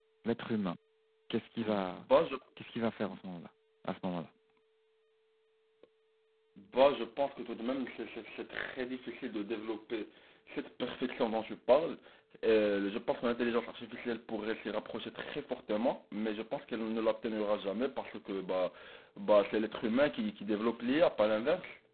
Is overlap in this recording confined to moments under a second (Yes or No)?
Yes